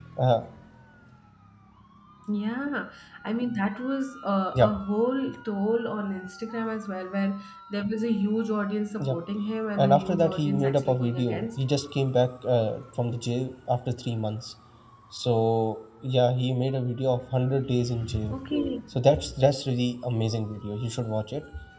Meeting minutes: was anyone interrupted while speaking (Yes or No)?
Yes